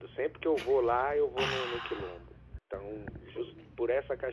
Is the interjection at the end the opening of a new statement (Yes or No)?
No